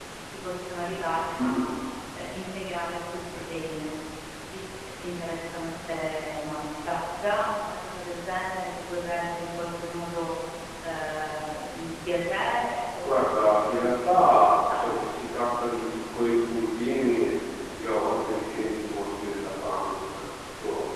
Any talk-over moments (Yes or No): Yes